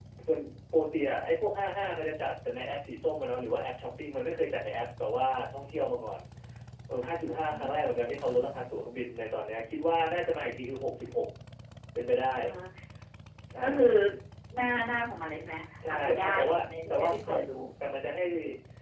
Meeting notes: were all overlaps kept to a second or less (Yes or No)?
No